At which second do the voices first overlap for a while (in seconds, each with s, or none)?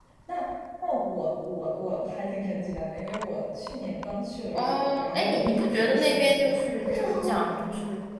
4.6 s